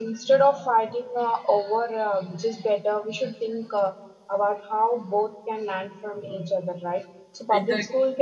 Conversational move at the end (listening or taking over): listening